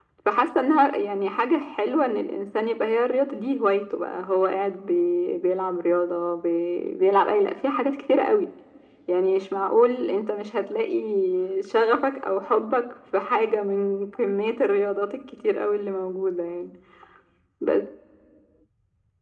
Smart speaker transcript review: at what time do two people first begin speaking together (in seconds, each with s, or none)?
none